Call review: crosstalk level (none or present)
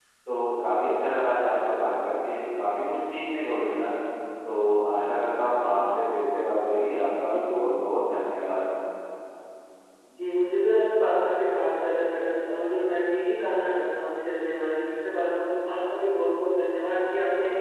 none